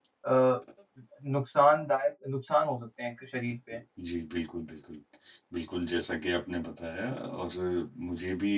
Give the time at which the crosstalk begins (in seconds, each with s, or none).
none